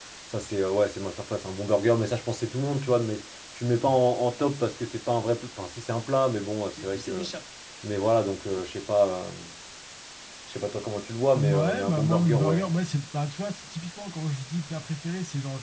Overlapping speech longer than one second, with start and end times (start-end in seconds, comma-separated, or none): 11.3-12.6